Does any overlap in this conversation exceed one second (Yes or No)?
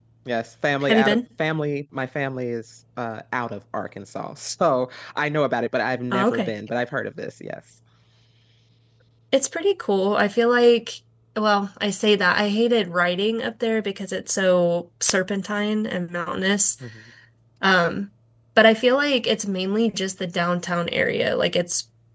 No